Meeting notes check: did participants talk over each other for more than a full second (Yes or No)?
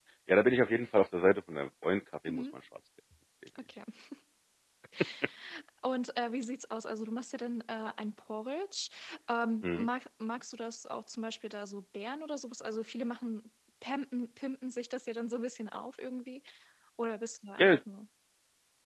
No